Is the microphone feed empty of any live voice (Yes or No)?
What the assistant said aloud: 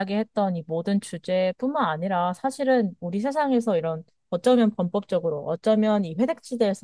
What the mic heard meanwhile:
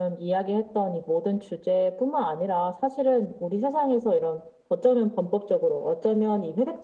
Yes